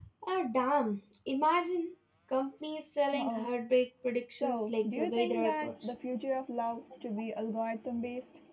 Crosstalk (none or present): present